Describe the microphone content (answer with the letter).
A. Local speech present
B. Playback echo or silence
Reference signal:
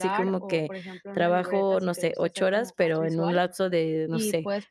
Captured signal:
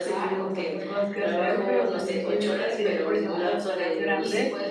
A